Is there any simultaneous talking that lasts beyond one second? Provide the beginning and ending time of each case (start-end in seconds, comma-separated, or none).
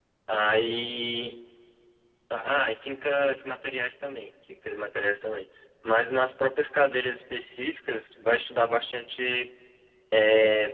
none